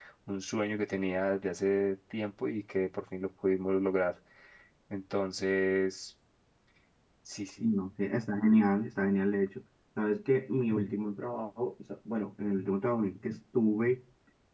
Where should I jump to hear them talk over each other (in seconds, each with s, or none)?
none